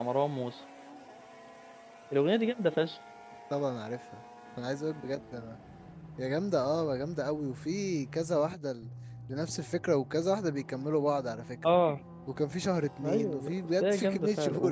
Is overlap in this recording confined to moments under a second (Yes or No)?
No